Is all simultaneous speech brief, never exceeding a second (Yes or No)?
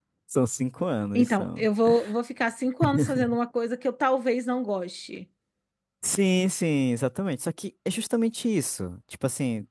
Yes